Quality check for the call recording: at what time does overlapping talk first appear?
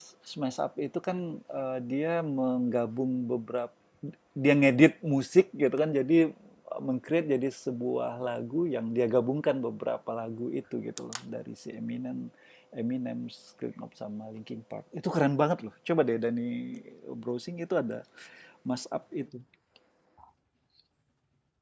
none

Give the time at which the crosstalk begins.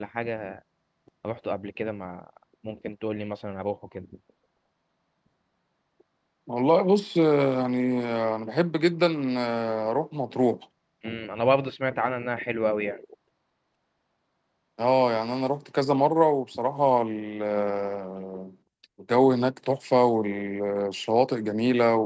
none

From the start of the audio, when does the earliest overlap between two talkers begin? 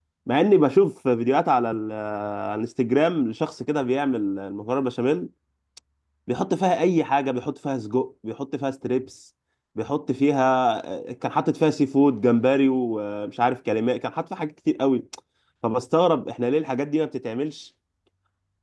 none

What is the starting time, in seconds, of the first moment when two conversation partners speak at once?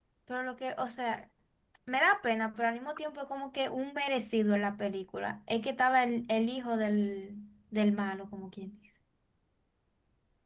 none

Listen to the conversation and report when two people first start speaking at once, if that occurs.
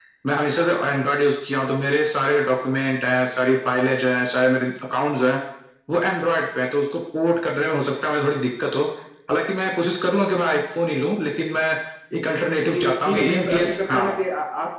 12.7 s

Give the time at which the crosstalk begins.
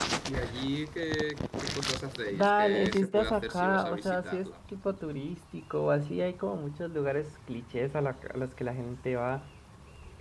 2.3 s

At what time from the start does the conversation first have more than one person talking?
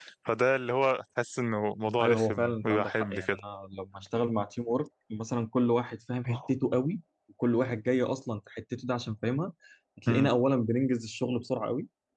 2.0 s

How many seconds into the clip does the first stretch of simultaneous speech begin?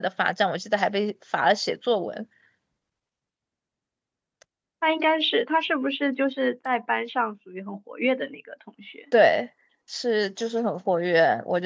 none

